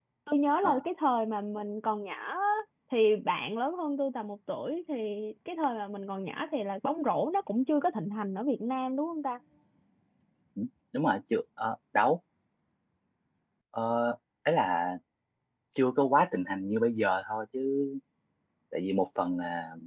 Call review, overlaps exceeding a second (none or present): none